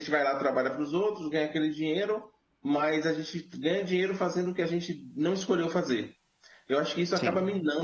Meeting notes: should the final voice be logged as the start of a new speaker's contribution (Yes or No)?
No